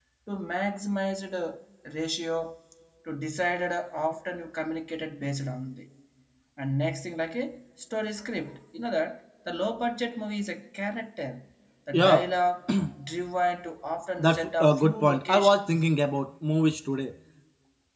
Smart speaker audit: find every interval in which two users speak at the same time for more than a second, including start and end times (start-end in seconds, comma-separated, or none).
14.2-15.9